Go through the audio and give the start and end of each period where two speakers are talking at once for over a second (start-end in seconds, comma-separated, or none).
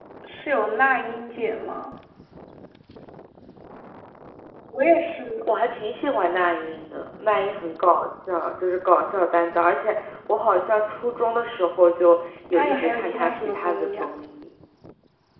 12.5-14.1